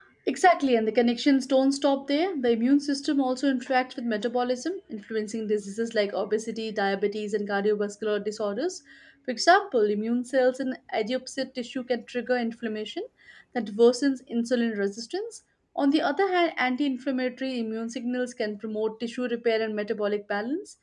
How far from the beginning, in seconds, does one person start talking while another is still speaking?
none

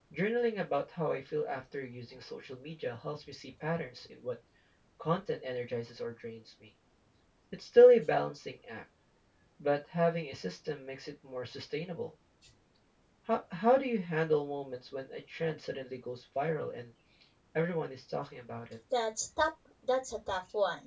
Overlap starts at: none

